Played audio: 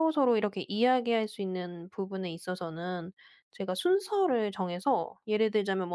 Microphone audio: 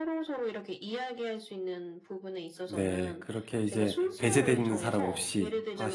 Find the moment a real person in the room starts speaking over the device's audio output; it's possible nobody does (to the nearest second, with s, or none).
3 s